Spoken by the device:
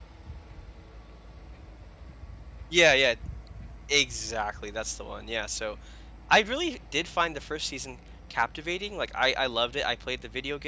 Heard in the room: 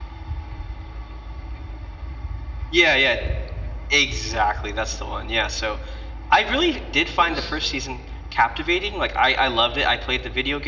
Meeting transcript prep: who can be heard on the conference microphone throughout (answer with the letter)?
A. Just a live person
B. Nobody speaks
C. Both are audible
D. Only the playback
C